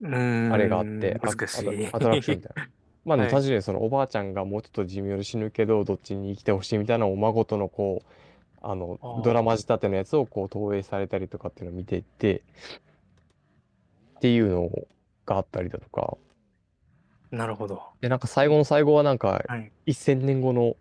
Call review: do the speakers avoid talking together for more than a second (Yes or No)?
No